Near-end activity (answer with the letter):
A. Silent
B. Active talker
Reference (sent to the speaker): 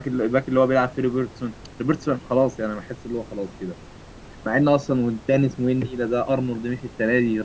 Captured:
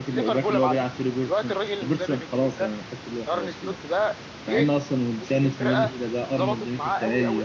B